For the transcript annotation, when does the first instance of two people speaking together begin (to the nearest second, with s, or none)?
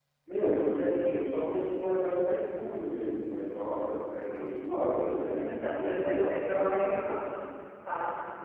5 s